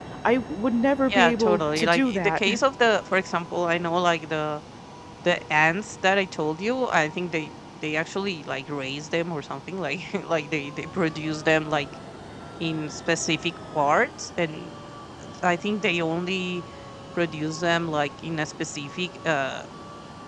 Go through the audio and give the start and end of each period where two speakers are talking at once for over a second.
1.1-2.4

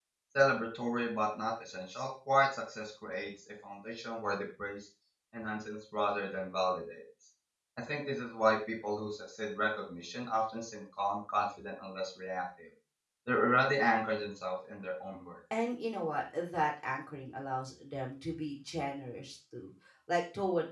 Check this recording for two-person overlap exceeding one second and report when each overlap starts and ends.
none

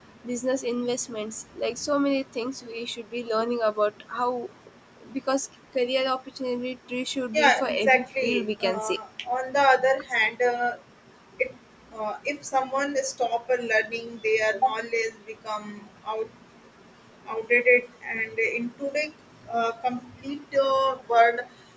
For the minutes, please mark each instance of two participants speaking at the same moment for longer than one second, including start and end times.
7.3-9.0

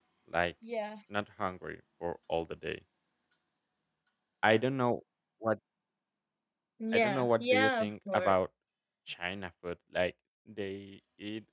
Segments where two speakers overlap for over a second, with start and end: 6.9-8.3

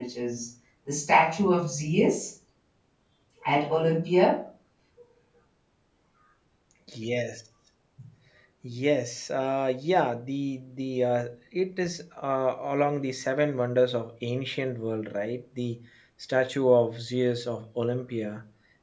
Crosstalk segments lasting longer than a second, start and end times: none

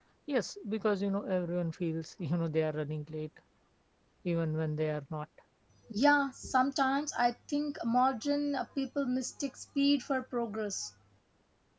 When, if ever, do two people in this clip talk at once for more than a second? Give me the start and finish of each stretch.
none

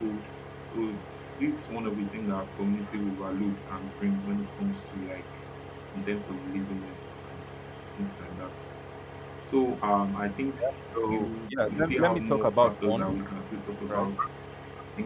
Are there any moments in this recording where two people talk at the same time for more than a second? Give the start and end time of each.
11.1-13.3

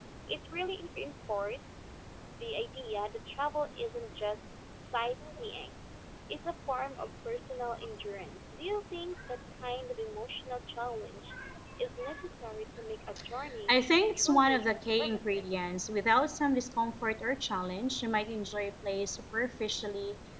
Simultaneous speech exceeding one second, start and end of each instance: 14.1-15.4

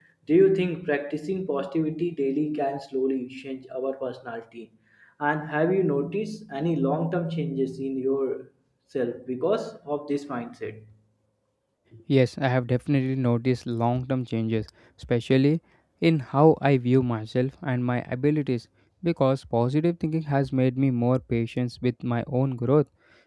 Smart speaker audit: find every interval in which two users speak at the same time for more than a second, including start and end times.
none

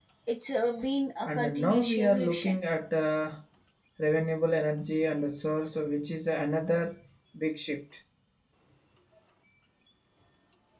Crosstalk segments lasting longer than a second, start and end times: 1.2-2.6

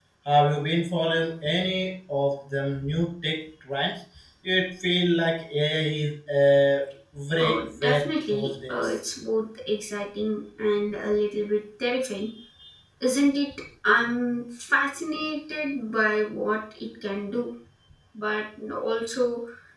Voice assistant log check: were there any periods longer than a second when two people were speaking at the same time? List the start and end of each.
7.4-9.0

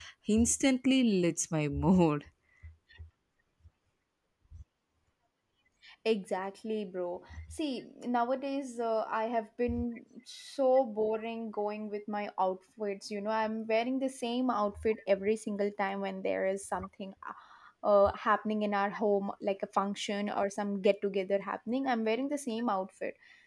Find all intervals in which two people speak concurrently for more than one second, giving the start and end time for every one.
none

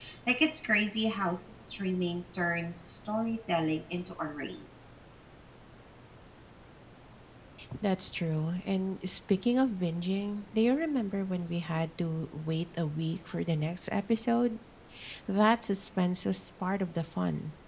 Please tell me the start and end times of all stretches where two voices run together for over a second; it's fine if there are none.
none

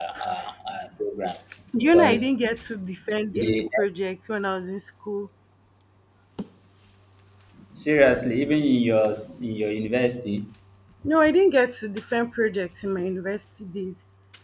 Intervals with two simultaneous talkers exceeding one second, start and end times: none

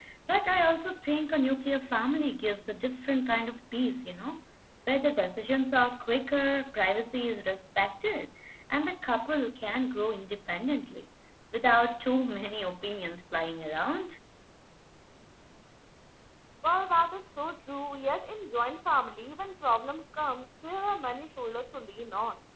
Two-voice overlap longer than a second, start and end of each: none

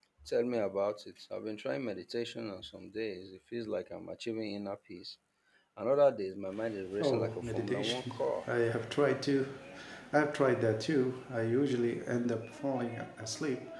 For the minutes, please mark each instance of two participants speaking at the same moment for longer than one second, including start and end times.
7.0-8.4

